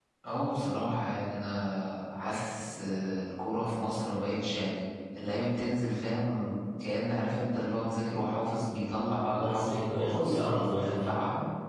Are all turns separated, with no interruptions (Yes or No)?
No